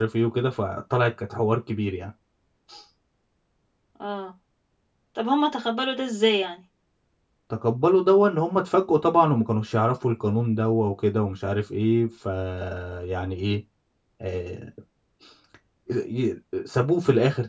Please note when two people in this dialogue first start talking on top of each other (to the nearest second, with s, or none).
none